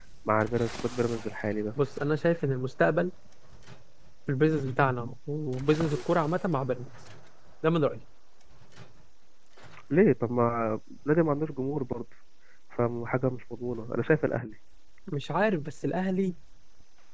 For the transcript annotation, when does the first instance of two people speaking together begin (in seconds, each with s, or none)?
none